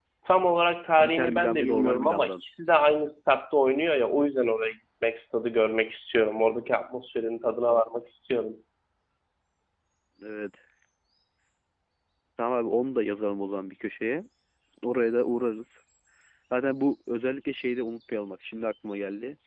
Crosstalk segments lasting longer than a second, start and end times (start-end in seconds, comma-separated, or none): 1.0-2.3